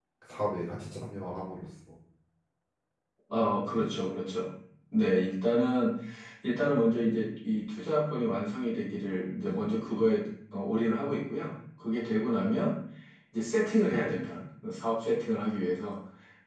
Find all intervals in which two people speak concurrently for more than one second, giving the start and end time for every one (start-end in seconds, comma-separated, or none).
none